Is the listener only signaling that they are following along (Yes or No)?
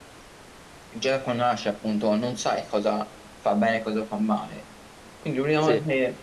Yes